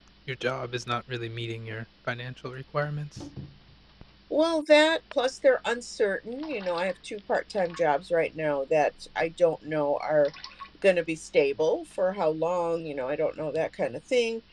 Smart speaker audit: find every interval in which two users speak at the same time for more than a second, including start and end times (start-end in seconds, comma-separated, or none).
none